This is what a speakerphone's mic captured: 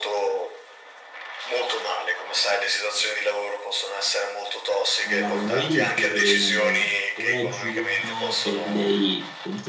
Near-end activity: present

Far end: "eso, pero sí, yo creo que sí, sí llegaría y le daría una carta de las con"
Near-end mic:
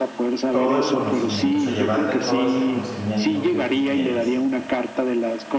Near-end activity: present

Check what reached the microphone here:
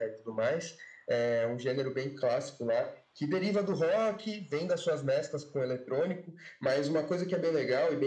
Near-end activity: none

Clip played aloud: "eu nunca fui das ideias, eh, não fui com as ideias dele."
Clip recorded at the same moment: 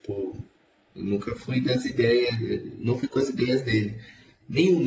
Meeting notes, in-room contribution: none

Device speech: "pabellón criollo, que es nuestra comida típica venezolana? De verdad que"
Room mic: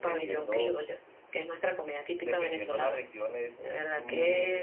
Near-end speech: present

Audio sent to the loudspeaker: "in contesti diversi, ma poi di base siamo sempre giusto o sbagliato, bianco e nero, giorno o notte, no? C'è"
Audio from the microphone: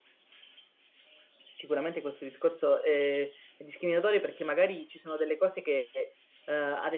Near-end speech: present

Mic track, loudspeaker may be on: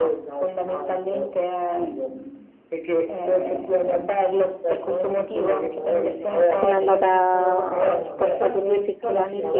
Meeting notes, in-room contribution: present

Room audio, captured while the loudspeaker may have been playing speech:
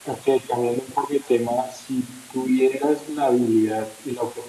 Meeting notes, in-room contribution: none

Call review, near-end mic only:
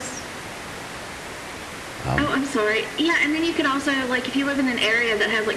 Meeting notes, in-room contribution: present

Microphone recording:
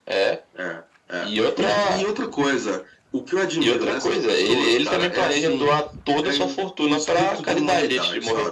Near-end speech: none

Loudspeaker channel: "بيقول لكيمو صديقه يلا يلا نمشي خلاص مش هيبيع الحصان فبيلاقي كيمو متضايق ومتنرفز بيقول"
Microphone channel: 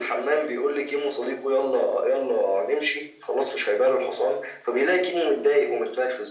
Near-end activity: none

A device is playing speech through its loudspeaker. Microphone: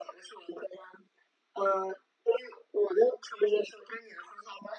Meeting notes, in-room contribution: none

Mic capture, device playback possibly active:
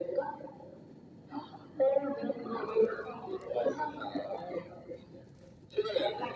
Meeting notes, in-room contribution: none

